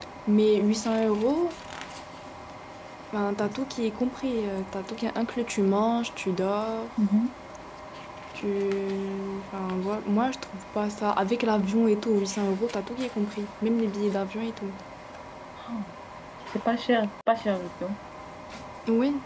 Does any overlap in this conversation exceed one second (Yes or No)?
No